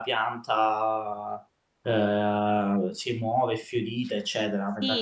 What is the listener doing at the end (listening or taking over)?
taking over